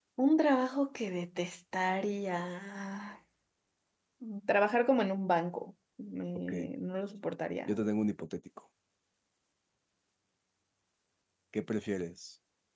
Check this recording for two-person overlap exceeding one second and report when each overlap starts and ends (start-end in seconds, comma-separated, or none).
none